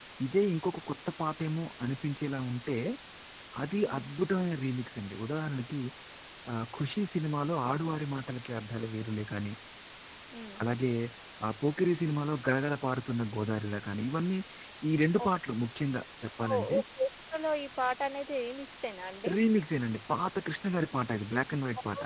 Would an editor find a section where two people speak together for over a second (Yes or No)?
No